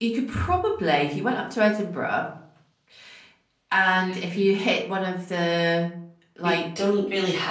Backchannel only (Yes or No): No